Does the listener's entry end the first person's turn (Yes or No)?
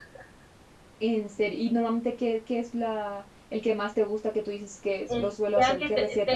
Yes